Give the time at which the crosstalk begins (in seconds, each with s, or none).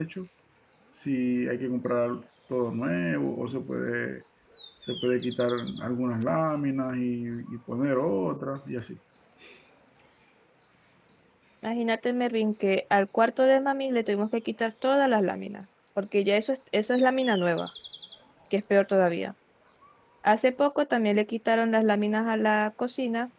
none